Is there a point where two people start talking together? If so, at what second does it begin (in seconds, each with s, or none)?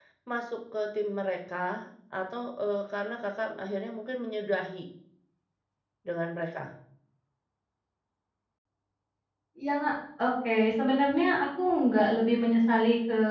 none